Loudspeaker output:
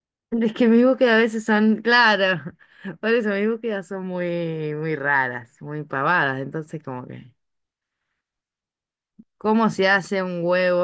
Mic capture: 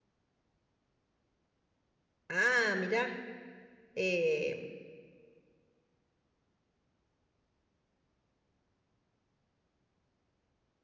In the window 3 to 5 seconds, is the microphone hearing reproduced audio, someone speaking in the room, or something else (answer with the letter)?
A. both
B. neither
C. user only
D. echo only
C